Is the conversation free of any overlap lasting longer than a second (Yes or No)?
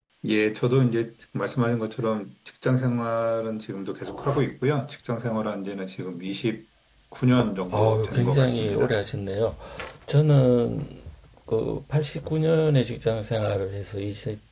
No